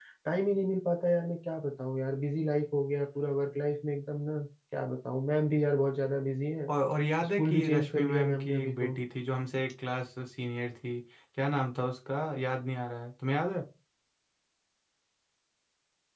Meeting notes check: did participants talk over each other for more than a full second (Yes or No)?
Yes